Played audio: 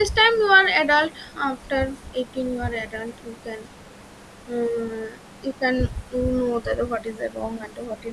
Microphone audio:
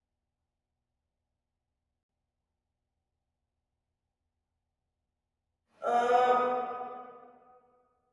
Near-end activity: present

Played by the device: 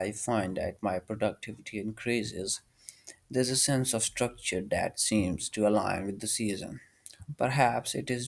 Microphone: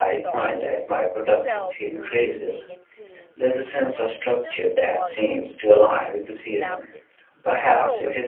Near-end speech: present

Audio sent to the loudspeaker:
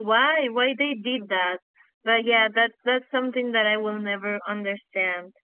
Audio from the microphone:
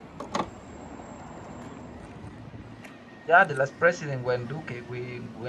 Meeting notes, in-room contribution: present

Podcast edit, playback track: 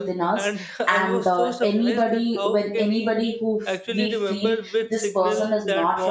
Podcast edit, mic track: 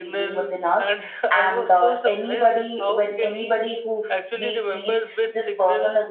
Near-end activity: none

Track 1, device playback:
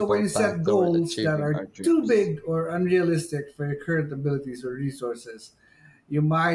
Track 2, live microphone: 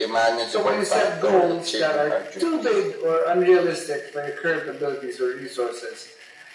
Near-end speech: none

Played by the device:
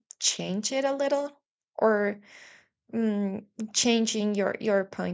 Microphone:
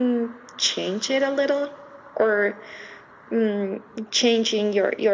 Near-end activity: none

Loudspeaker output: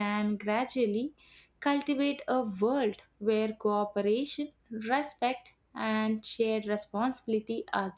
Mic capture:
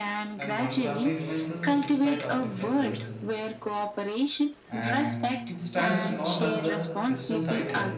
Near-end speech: present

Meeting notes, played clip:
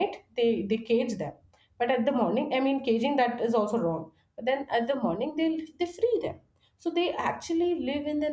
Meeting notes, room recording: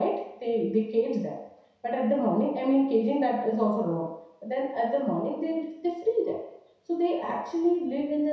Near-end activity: none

